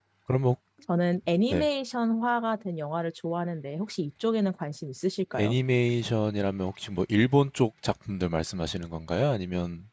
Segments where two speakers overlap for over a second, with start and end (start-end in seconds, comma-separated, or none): none